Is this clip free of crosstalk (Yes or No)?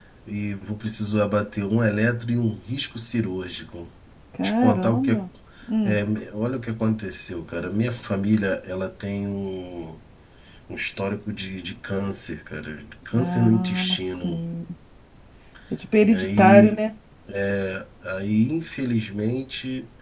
No